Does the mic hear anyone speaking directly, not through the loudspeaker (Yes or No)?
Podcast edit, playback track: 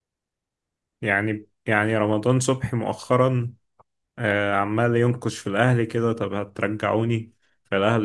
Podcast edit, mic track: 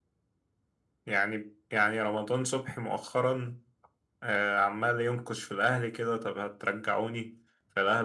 No